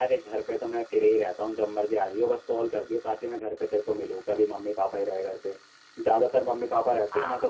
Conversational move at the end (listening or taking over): listening